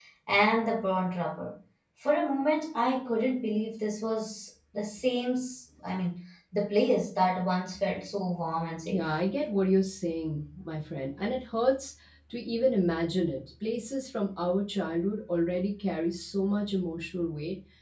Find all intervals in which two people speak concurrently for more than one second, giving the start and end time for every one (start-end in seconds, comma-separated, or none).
none